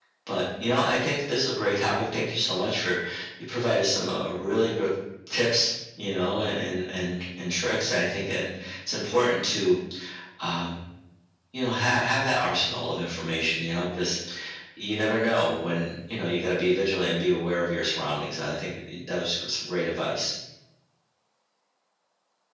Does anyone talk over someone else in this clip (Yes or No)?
No